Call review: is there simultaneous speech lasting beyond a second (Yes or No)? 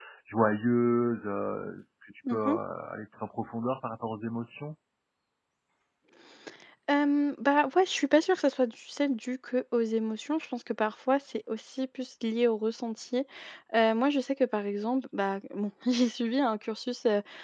No